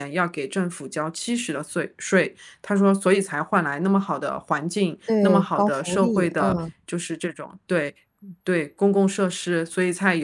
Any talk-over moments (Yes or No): Yes